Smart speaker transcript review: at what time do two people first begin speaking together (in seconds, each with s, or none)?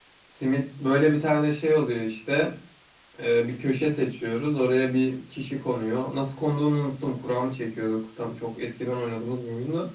none